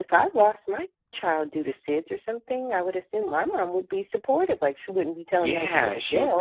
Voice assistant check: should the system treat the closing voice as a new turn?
Yes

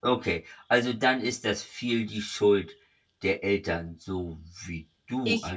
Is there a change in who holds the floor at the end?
Yes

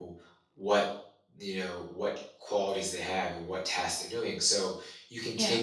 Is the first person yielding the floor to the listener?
No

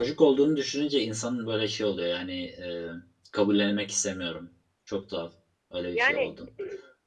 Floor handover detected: No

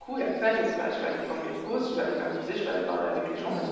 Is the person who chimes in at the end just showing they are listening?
No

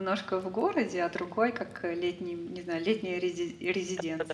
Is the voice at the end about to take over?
Yes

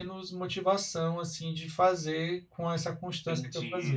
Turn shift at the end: Yes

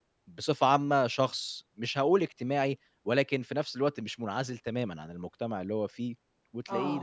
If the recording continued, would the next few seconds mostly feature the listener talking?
No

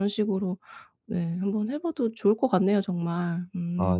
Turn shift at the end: Yes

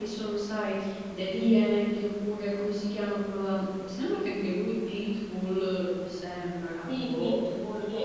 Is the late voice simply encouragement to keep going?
No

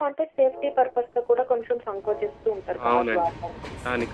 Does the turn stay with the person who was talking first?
No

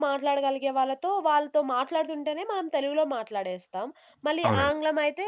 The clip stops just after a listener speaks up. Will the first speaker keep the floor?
Yes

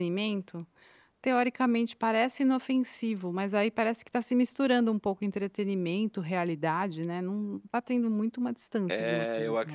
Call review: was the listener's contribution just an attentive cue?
No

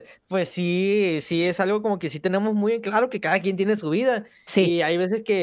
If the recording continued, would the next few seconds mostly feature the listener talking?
No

